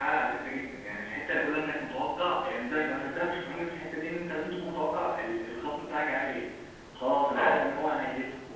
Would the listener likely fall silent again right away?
Yes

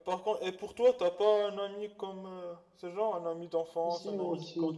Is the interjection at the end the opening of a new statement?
Yes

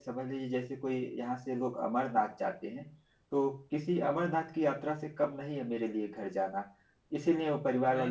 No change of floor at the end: Yes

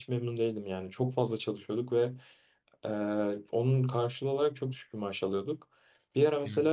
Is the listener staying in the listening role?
Yes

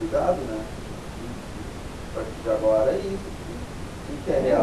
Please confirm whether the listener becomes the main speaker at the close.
Yes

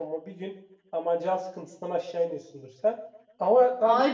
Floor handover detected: Yes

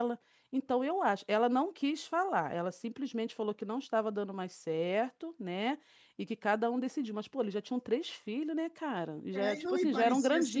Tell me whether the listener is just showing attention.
No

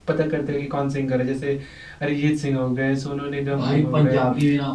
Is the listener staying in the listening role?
No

